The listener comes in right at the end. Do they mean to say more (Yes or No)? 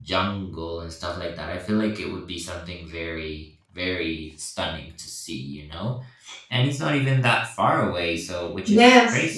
Yes